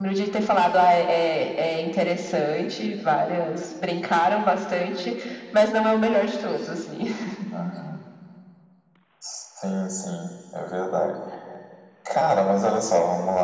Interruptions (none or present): none